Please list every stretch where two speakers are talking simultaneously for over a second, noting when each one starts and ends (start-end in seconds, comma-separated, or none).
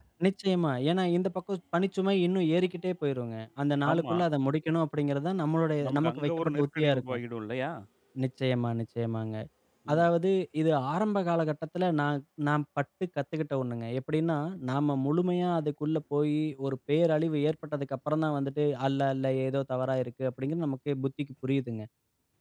5.8-7.2